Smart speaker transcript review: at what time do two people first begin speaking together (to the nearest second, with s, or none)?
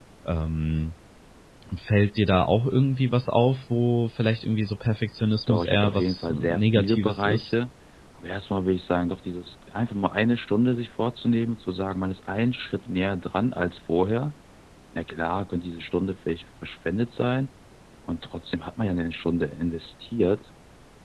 5 s